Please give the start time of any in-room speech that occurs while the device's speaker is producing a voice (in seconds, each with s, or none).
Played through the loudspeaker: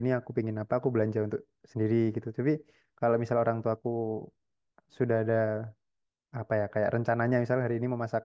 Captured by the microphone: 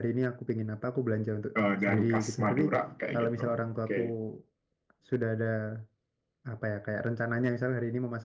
1.6 s